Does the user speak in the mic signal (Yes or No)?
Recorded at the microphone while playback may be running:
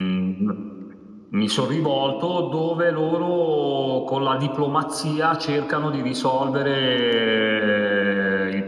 Yes